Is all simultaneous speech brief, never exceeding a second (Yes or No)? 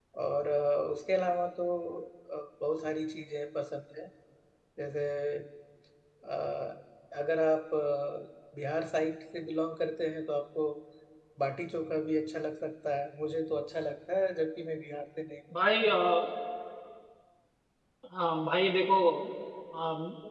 Yes